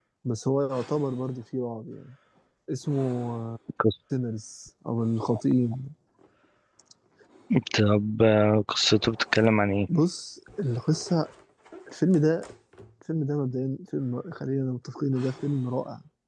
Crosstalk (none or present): none